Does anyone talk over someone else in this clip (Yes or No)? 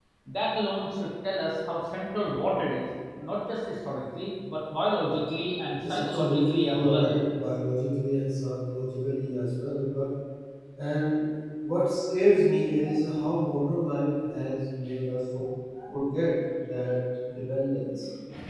Yes